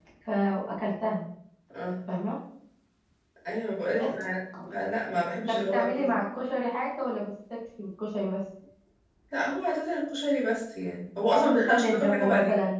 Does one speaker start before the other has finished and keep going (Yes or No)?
Yes